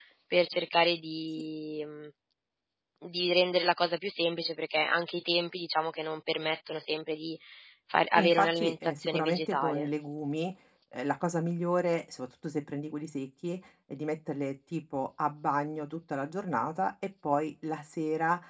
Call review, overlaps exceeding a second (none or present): present